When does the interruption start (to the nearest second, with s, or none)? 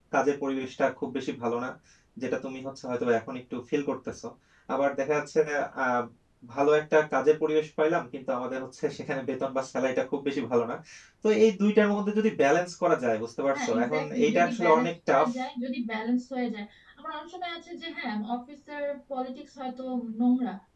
14 s